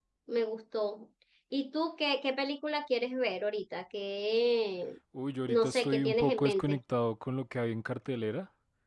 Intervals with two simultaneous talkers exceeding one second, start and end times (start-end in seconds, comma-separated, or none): 5.5-6.8